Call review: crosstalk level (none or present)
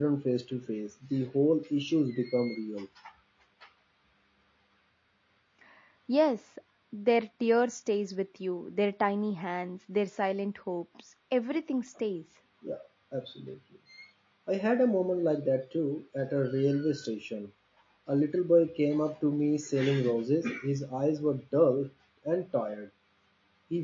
none